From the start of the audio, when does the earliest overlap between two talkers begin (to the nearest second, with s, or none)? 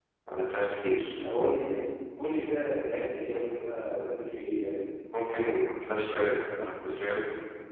none